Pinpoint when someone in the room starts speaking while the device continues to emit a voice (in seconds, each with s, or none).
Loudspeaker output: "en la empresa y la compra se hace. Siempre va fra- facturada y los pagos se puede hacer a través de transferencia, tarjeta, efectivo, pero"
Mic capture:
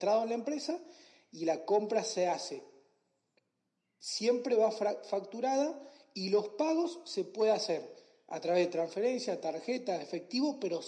none